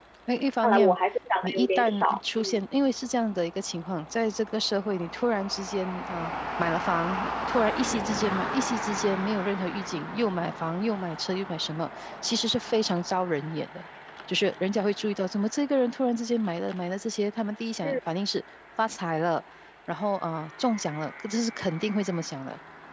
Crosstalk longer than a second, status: present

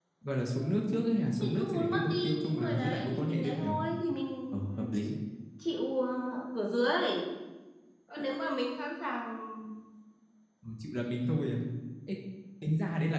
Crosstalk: present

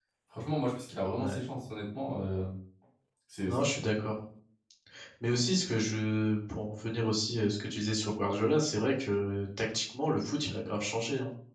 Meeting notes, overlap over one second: none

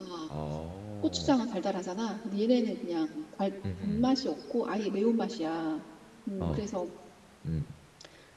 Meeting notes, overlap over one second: none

